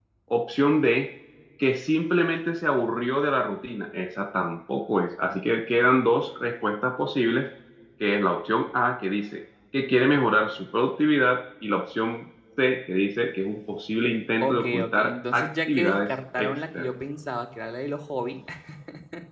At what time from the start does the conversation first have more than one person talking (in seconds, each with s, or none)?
14.4 s